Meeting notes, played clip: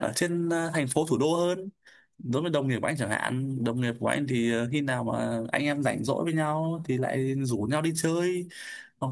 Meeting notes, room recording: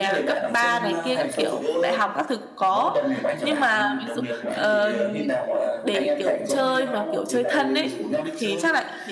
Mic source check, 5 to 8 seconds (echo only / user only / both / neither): both